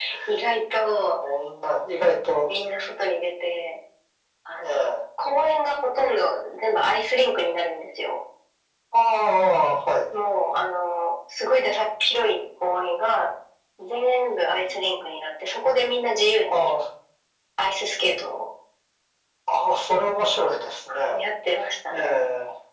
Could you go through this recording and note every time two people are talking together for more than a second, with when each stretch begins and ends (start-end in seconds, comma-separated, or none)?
none